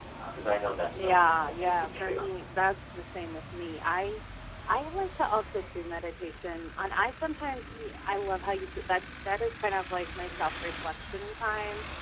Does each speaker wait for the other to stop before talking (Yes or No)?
No